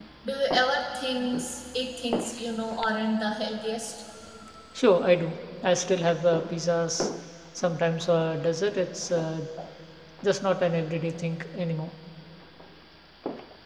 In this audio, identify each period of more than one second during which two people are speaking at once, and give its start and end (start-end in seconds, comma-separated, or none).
none